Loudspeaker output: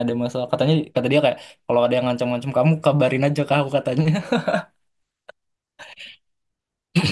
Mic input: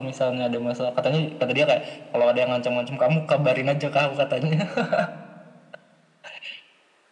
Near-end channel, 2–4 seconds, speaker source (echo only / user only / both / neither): echo only